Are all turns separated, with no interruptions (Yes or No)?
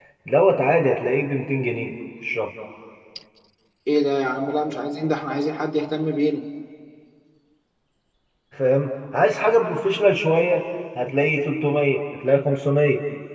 Yes